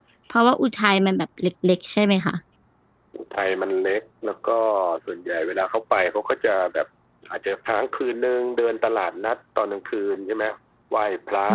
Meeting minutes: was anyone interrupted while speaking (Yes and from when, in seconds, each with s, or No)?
No